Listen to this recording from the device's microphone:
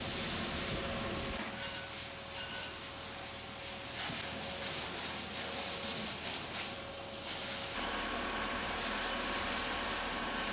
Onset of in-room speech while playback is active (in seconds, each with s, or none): none